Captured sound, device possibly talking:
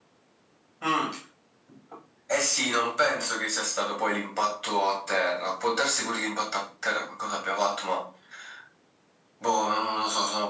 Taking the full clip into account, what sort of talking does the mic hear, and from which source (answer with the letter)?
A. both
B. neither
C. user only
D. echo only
D